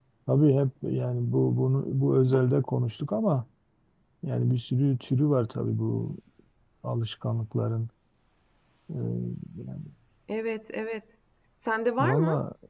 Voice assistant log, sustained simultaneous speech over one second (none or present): none